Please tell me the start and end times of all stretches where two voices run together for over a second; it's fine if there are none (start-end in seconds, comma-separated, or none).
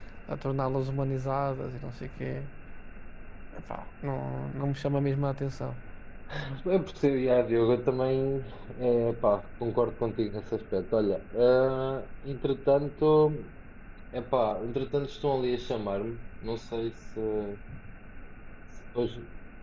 none